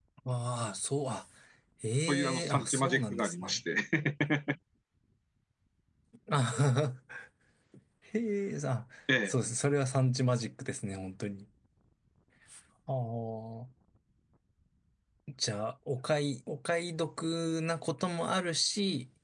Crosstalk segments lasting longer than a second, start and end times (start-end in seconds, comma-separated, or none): 2.1-3.6